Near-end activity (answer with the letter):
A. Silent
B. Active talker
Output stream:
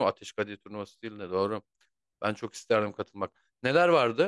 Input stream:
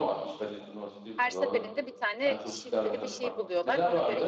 B